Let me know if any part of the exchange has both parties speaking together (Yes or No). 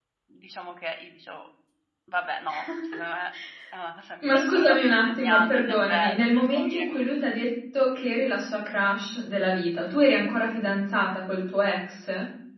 Yes